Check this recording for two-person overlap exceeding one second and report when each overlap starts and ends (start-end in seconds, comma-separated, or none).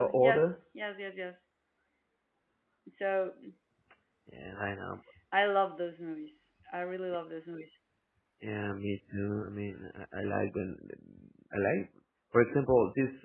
none